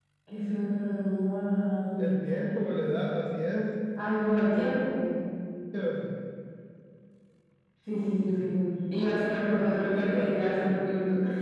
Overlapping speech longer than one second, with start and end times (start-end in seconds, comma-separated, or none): 9.4-10.8